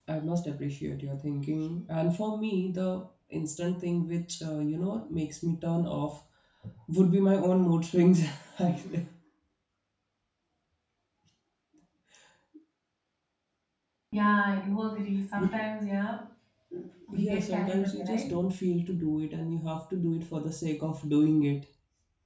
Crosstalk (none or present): present